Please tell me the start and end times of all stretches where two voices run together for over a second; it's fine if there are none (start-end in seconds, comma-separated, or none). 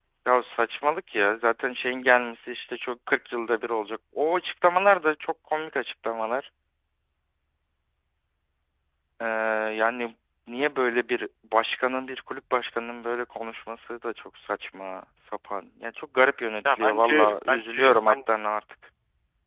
16.6-18.1